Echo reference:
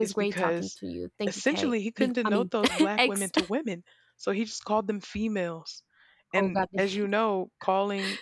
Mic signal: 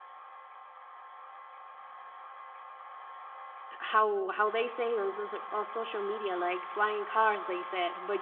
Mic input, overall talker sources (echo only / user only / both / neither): user only